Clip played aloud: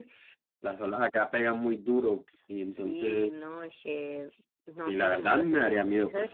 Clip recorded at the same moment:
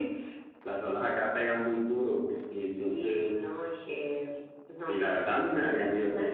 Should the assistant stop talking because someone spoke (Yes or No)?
No